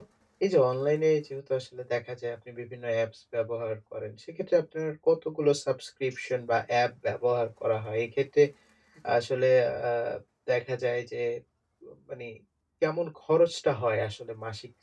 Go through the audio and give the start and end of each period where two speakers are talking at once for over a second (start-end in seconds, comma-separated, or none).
none